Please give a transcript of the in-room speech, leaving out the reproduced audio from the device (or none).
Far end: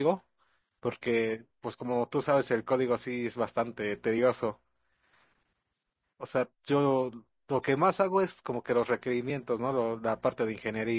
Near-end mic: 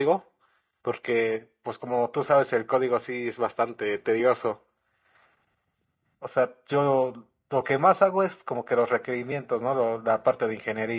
none